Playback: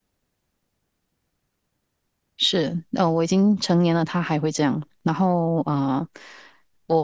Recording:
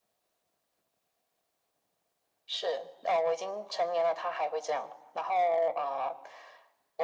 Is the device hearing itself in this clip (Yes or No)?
Yes